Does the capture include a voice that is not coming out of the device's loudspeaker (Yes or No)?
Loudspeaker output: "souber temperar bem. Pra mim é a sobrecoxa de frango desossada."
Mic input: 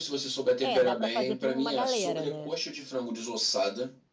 Yes